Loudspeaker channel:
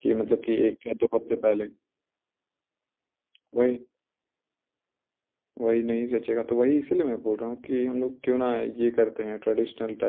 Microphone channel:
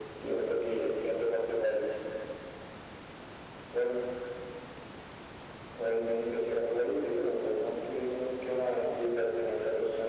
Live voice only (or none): none